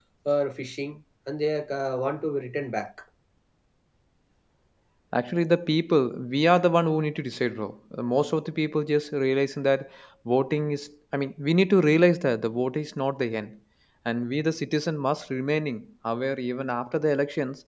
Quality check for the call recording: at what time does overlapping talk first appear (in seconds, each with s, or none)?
none